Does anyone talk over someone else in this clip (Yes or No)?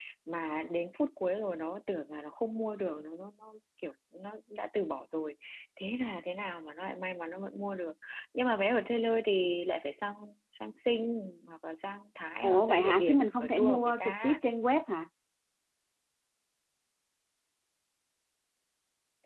Yes